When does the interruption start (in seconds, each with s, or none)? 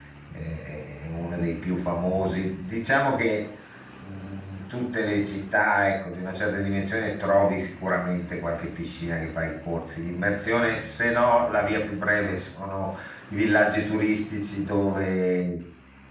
none